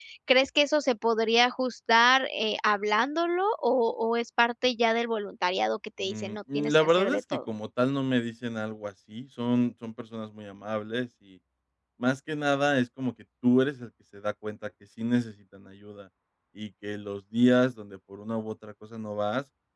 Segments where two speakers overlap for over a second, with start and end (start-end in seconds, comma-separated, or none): 6.1-7.4